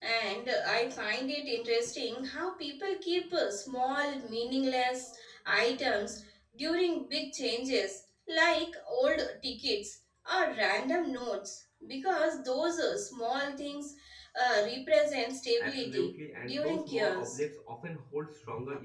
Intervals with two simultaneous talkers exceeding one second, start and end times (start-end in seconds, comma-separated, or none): 15.6-17.4